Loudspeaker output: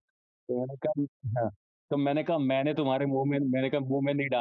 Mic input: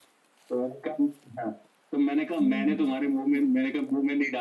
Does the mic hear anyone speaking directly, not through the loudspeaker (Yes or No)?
Yes